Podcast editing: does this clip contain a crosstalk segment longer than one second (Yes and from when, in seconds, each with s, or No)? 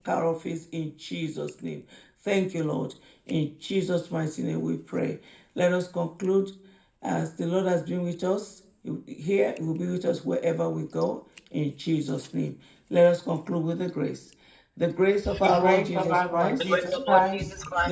Yes, from 15.4 s